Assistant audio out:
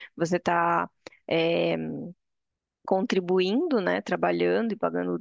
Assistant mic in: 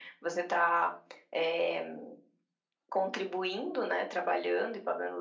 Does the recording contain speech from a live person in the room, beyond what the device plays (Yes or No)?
No